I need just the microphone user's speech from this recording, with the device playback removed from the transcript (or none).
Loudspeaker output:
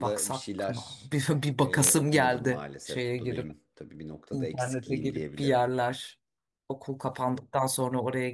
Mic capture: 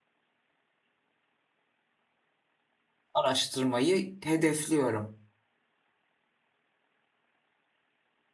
Araştırmayı hedefliyorum.